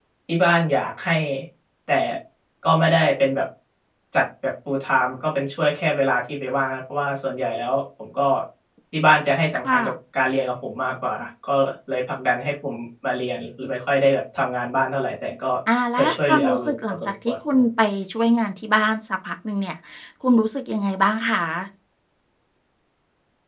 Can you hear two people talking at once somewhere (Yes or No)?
Yes